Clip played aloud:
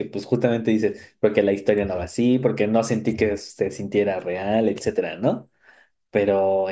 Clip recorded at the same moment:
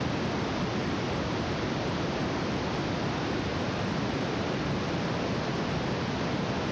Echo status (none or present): none